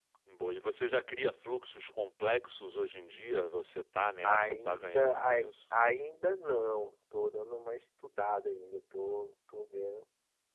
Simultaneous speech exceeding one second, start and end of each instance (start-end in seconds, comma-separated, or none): 4.2-5.5